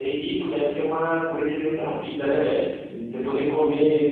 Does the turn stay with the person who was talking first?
Yes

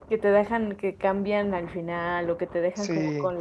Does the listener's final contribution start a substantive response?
Yes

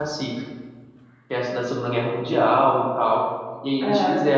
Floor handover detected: No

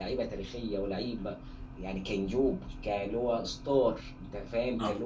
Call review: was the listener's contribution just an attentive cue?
Yes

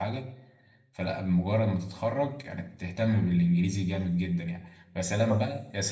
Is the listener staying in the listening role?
Yes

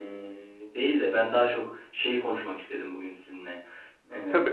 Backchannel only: Yes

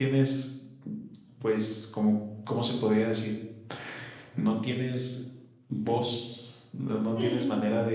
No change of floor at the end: Yes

